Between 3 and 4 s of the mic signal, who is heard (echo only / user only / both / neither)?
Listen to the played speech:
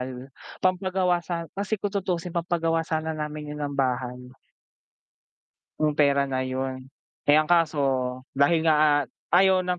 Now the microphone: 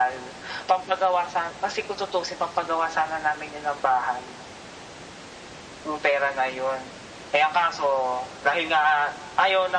echo only